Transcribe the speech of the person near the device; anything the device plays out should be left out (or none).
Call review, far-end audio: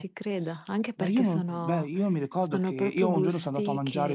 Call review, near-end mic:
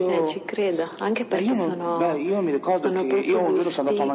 none